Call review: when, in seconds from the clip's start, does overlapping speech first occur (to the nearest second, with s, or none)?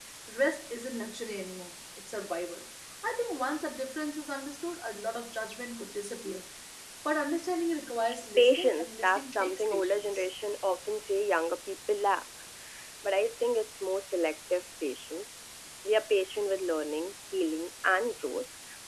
8 s